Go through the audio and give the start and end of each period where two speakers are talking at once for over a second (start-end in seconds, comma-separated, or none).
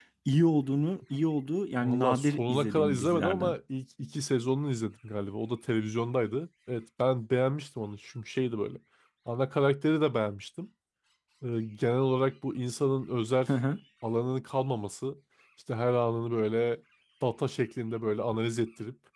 1.8-3.5